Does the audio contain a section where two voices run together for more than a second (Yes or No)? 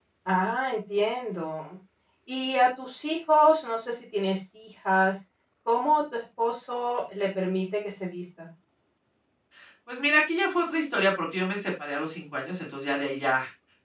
No